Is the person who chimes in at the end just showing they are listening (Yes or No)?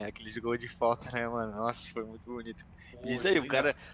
Yes